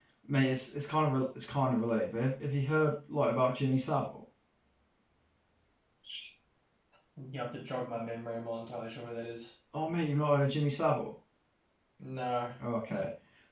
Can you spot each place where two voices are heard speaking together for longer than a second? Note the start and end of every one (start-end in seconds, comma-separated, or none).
none